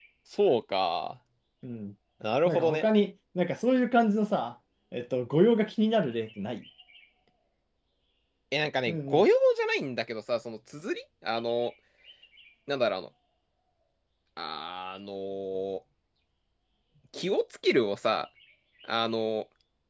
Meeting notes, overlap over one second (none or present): none